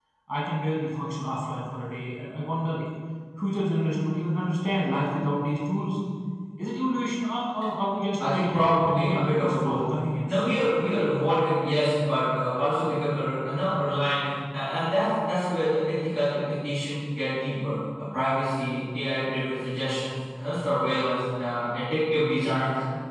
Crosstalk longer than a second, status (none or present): present